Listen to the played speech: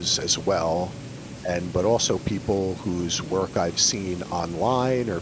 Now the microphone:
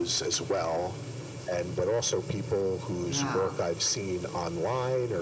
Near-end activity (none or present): present